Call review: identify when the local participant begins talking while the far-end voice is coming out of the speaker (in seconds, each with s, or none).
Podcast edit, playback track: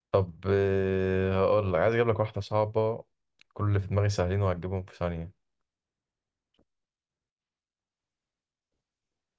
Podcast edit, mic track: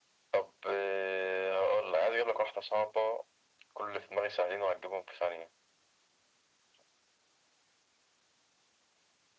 none